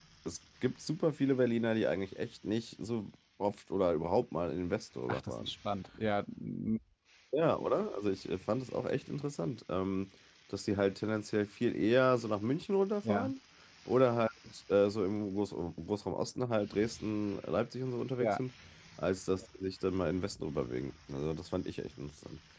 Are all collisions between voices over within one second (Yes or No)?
Yes